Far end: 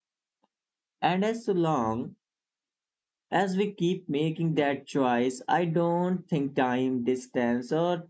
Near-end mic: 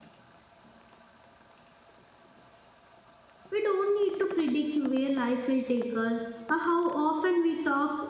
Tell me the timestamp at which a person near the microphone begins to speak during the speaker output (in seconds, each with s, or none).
3.5 s